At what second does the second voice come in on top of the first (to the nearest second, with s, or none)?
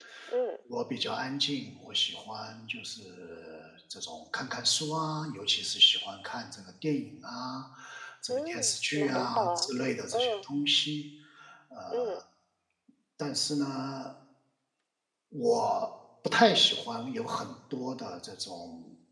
8 s